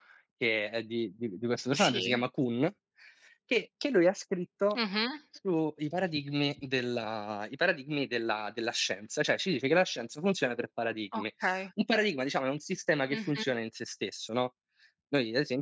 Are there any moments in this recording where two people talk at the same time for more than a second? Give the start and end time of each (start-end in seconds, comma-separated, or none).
none